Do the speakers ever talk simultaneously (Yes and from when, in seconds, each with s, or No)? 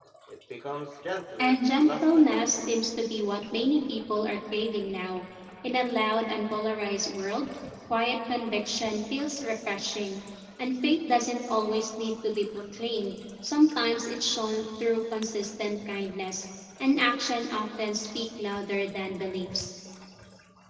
Yes, from 1.4 s